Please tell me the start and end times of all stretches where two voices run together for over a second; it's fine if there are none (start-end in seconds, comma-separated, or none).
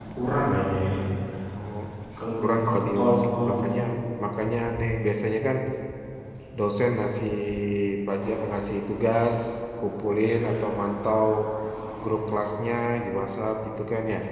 2.4-3.8